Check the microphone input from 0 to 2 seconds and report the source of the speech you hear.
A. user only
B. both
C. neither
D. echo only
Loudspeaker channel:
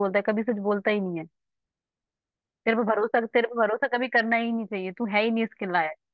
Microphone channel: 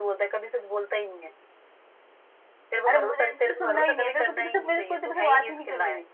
D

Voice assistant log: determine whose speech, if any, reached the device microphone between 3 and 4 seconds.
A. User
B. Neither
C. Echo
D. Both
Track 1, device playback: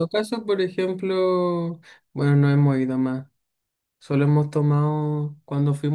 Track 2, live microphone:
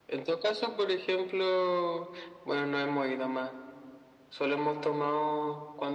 C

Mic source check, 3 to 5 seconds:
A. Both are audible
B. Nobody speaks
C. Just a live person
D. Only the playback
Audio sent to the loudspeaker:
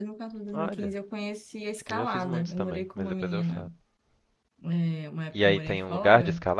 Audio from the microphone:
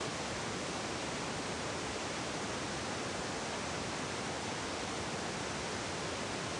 B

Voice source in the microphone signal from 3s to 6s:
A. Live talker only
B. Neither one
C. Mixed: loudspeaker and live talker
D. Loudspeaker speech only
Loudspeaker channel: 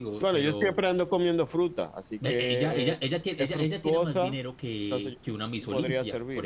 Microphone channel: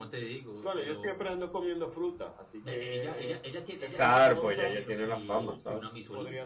C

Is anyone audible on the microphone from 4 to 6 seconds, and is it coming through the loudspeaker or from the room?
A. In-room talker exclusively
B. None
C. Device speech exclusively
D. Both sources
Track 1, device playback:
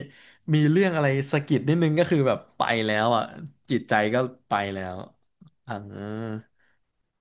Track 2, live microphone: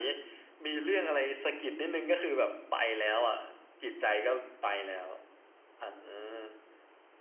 C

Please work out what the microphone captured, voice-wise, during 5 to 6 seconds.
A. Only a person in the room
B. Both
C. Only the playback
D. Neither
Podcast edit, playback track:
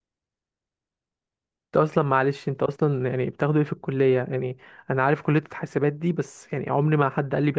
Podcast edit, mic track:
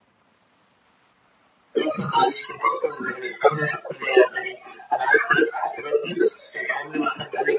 C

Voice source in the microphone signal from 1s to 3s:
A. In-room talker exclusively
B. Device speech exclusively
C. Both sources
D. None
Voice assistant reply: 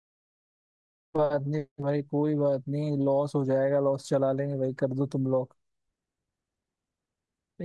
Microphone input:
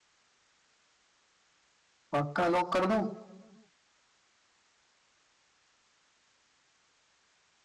A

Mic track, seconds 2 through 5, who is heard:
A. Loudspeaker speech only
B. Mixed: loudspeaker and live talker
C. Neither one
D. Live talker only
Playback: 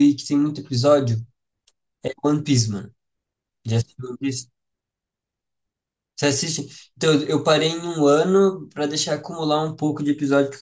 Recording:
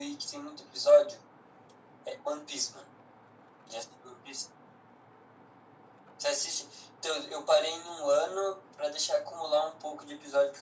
A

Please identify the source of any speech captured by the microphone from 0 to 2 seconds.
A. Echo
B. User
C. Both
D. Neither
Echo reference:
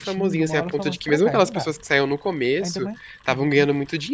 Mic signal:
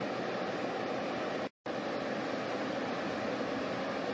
D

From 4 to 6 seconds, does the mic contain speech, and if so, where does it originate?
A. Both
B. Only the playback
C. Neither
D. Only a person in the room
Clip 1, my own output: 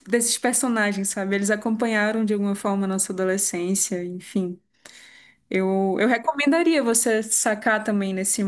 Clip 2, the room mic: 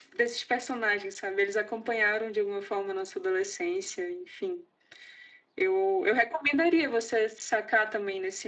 B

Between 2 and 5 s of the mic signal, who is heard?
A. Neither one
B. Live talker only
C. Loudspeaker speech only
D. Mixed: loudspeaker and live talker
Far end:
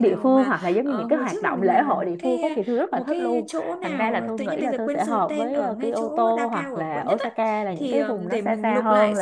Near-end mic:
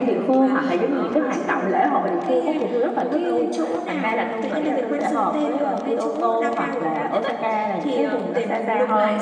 C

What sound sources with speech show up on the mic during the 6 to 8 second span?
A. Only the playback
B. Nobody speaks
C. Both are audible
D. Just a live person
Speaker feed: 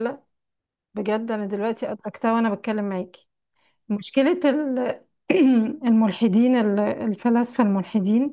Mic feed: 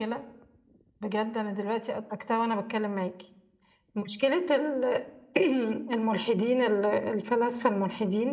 A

